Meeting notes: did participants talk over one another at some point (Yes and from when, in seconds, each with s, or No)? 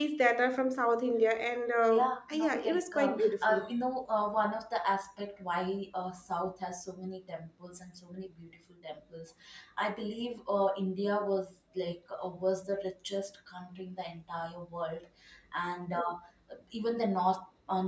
Yes, from 1.9 s